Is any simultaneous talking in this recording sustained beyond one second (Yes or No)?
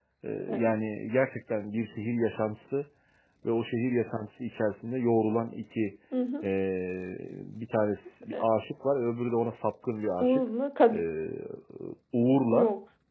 No